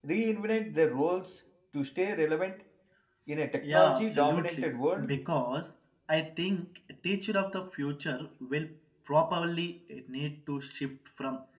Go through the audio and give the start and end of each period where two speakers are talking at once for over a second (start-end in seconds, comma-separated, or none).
3.6-5.2